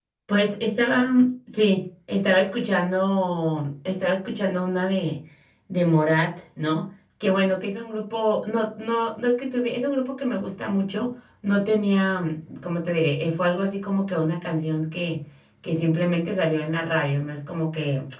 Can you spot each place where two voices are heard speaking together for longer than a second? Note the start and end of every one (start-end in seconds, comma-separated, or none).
none